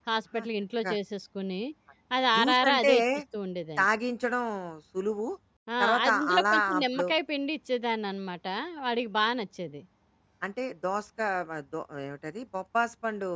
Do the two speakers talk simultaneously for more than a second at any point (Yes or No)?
Yes